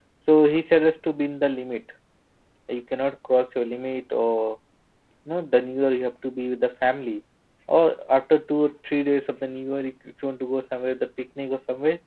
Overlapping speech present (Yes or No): No